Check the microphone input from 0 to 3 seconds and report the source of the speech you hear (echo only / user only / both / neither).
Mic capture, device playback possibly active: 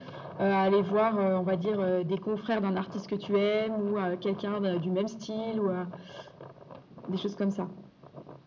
echo only